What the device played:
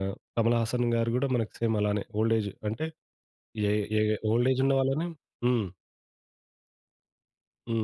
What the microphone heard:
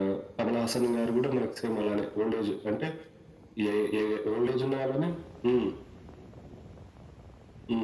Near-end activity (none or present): none